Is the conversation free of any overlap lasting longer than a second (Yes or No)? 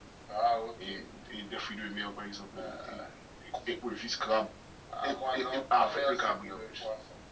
No